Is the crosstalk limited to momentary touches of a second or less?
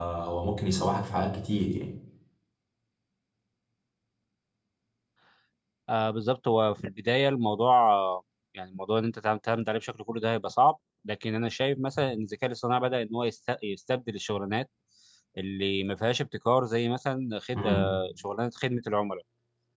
Yes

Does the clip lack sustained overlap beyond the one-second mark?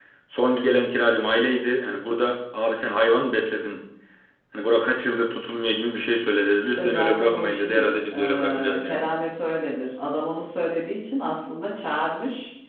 No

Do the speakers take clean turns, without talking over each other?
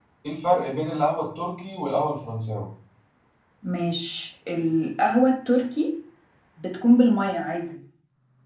Yes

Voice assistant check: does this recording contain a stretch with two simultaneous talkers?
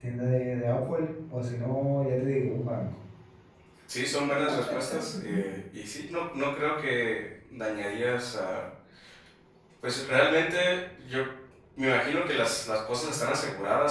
No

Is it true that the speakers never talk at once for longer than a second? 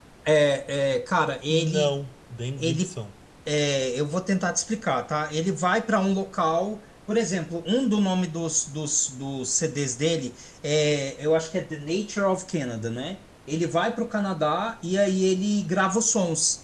Yes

